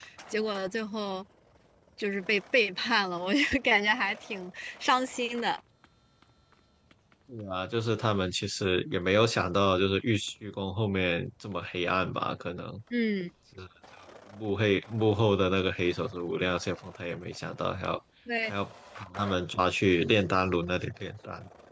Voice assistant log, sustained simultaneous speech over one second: none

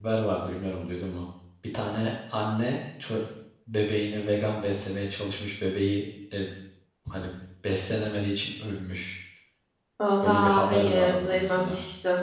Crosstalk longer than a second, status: present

